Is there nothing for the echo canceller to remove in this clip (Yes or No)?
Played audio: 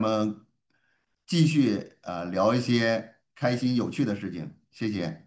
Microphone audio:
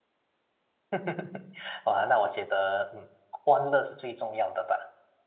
Yes